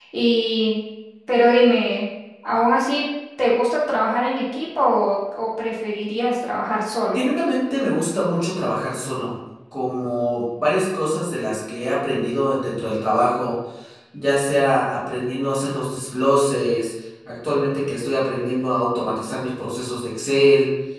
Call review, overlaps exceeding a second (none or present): none